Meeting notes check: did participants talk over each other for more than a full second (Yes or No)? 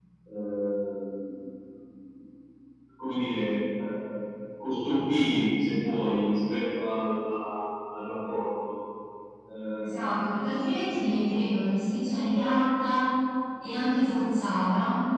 No